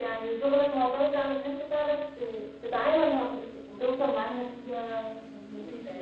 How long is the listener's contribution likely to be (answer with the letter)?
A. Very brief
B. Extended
B